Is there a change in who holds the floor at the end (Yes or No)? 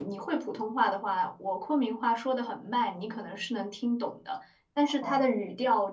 No